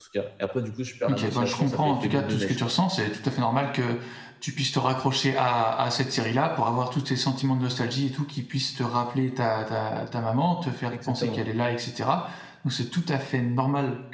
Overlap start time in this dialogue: 1 s

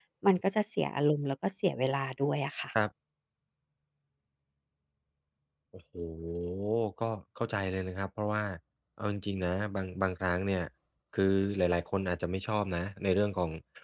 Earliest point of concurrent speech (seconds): none

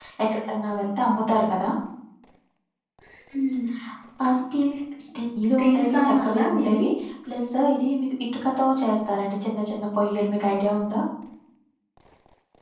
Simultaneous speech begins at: 5 s

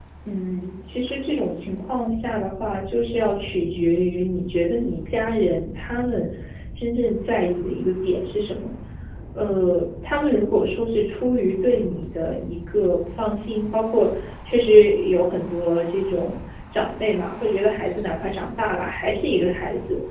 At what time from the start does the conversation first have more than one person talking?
none

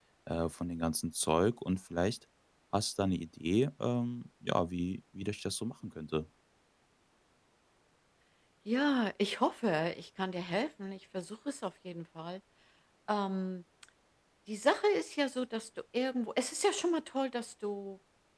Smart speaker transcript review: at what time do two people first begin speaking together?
none

